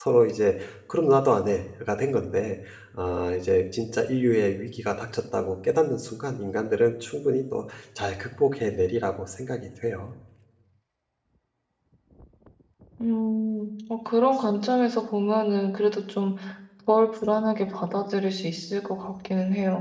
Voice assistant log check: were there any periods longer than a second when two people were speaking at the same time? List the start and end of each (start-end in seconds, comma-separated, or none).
none